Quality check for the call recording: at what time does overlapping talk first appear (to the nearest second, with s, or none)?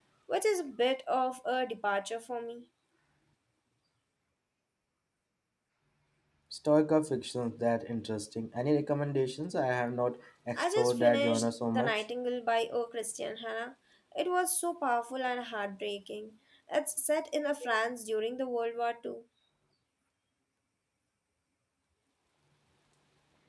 11 s